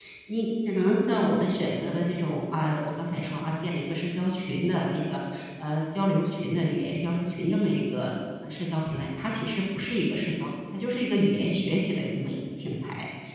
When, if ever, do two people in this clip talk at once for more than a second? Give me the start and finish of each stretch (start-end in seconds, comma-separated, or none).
none